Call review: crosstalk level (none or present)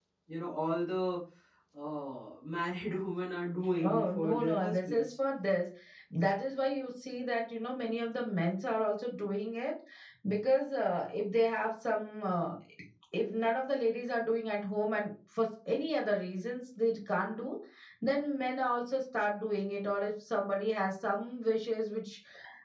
present